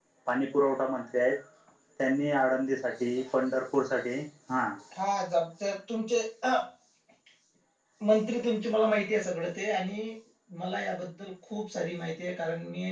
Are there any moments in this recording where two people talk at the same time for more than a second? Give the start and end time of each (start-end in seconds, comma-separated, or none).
none